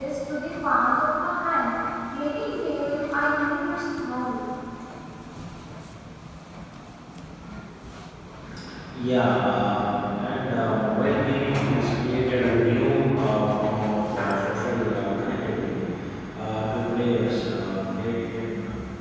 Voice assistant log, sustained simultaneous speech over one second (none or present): none